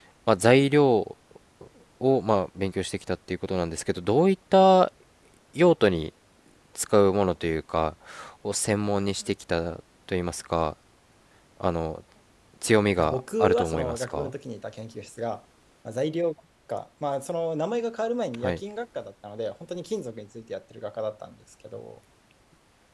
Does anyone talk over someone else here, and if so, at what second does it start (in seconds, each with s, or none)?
13.0 s